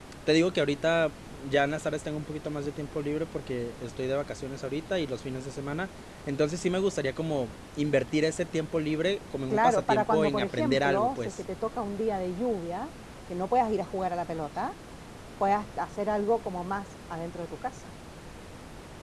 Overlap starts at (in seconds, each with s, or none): 9.5 s